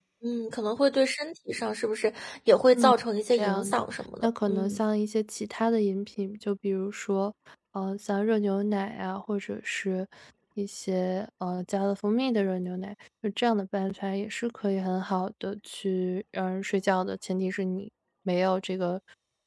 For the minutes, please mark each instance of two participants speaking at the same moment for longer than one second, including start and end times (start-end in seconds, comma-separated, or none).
3.3-4.8